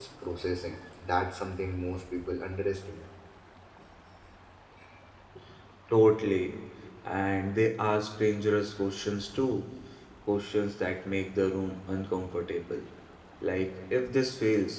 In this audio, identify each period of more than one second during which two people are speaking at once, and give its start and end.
none

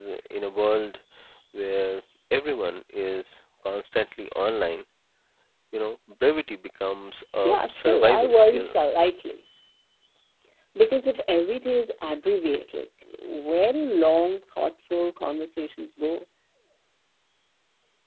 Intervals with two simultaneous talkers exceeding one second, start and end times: 7.4-8.7

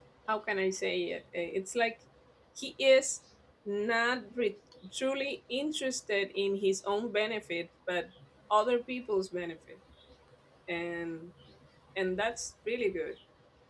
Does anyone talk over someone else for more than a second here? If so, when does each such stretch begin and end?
none

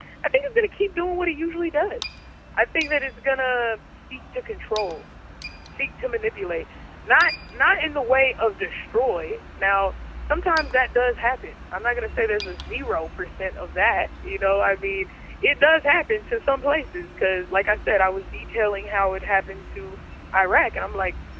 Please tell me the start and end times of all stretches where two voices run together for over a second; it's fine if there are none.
none

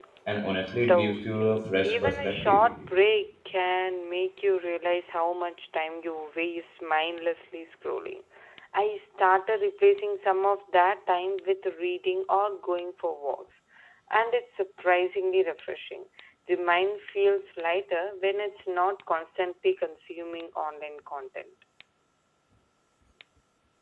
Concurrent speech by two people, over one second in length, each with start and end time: 0.9-2.6

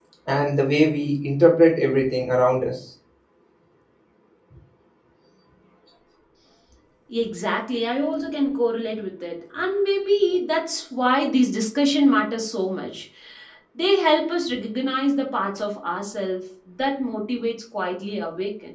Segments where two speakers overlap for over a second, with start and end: none

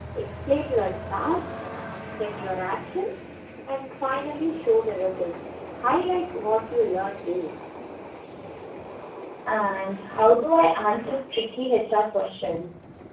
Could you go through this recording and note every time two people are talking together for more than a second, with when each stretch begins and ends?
none

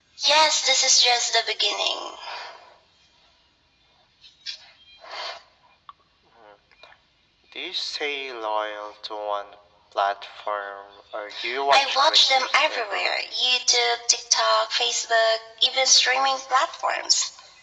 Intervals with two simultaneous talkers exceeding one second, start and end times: 11.7-13.2

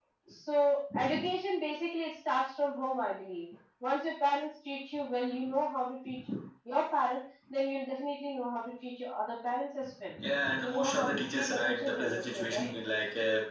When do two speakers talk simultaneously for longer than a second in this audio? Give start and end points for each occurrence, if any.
10.6-12.7

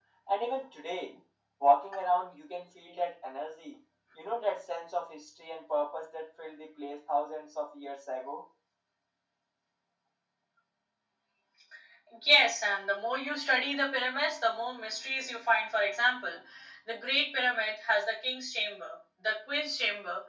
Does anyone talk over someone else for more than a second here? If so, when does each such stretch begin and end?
none

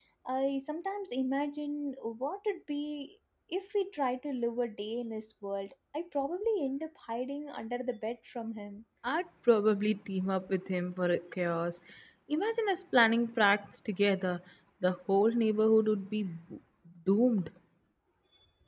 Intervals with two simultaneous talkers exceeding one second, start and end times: none

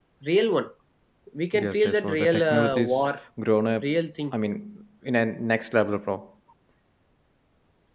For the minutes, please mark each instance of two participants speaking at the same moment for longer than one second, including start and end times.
1.6-3.0

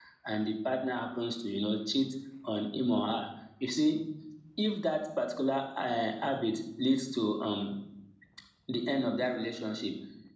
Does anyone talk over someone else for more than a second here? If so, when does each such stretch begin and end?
none

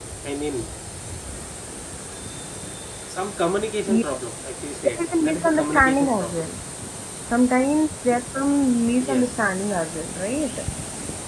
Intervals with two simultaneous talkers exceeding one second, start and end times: 5.0-6.5

